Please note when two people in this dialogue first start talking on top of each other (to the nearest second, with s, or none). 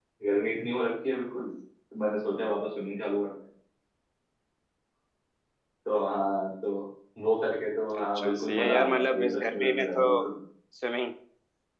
8 s